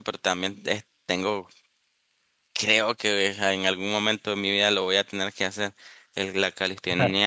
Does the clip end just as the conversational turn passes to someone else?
No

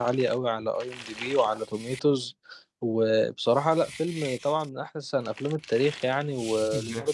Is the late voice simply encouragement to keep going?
Yes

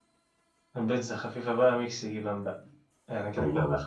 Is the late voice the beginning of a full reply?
No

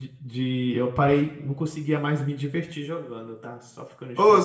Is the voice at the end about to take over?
Yes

